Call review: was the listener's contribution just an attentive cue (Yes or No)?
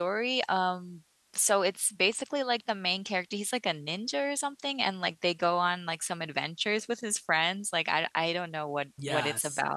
No